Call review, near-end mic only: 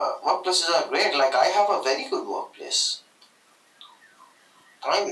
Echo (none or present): present